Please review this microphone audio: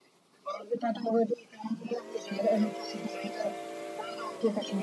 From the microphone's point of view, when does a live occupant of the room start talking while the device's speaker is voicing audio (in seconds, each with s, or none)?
none